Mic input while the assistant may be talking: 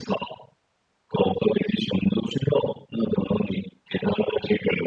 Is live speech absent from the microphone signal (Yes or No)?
Yes